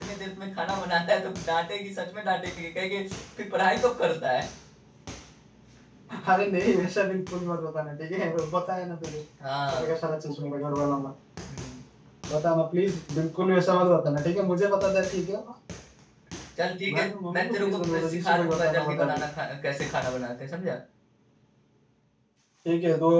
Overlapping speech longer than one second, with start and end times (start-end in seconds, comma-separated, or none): 16.9-19.2